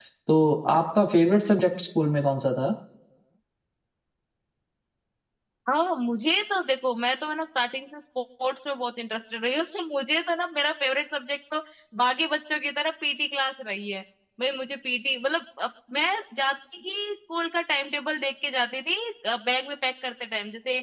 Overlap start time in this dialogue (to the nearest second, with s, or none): none